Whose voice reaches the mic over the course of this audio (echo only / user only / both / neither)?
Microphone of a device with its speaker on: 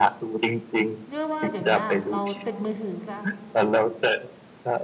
both